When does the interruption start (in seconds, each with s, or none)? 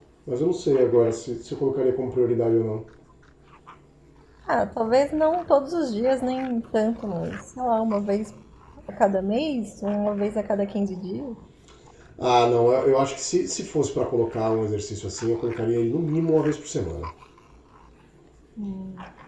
none